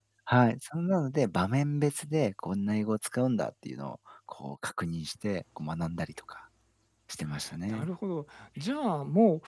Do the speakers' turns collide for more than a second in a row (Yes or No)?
No